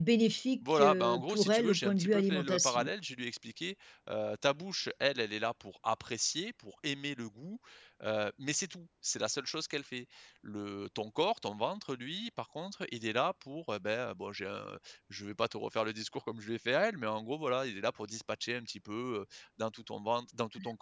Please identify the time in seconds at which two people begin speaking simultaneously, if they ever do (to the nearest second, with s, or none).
1 s